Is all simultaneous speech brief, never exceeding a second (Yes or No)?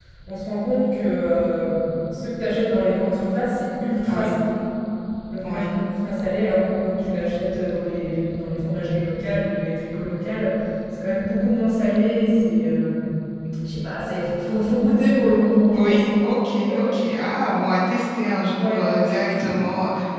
Yes